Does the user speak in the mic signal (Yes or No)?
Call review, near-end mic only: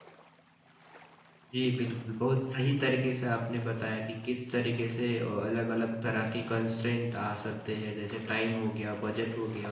Yes